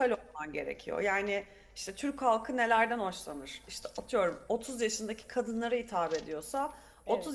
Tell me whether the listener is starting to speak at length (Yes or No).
No